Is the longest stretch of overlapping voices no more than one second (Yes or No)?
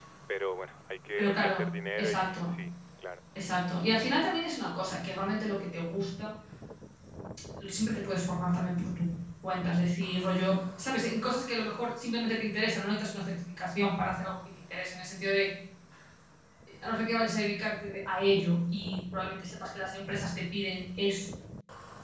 Yes